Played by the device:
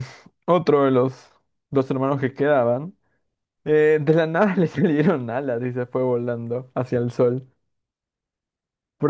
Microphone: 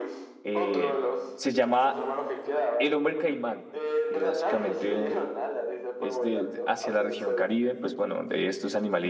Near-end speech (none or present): present